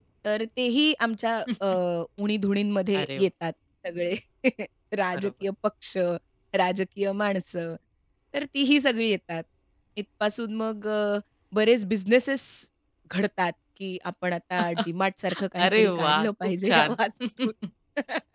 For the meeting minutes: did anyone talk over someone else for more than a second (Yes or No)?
Yes